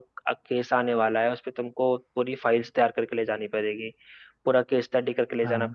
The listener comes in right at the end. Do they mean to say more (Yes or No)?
No